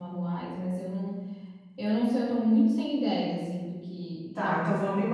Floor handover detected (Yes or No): Yes